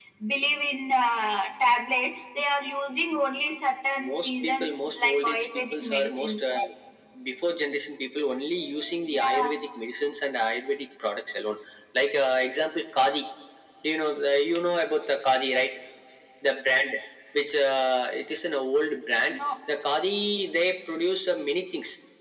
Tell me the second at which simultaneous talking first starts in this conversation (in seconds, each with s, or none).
4.1 s